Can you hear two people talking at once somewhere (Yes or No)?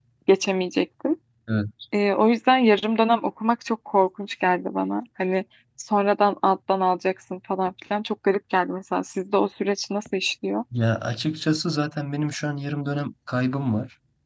No